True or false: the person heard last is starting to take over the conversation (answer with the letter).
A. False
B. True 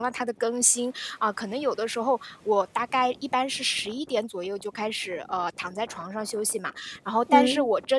A